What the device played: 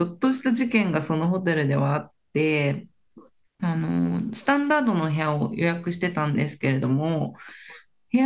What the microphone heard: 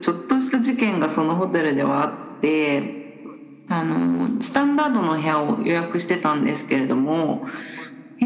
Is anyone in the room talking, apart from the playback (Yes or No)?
No